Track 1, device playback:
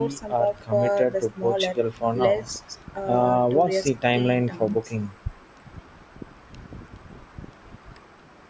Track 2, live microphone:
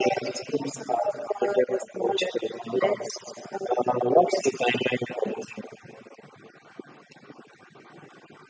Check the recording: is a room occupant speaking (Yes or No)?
No